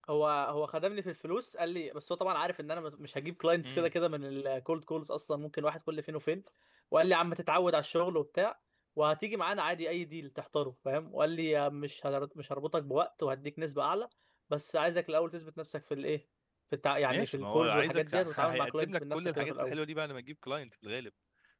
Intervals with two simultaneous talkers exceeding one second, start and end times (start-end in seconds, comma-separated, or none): 17.1-19.8